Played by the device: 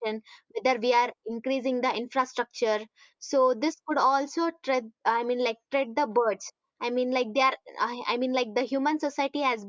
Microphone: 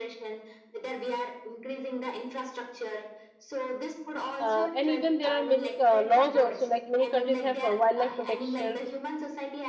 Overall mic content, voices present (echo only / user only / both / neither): both